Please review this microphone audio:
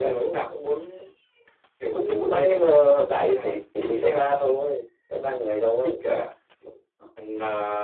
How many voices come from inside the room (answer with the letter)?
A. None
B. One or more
A